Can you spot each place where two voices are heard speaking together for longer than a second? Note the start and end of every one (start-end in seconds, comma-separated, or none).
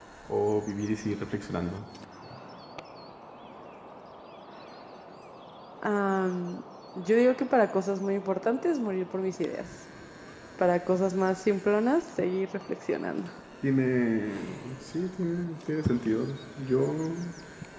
none